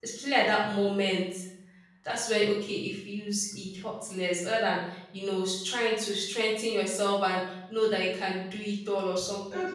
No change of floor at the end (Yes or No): No